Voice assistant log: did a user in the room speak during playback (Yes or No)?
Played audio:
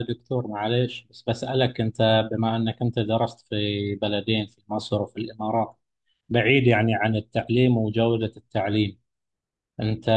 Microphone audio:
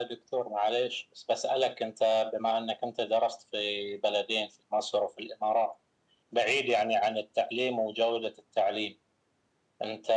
No